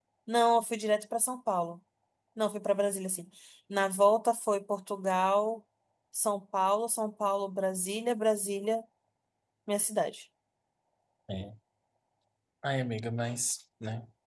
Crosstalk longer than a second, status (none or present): none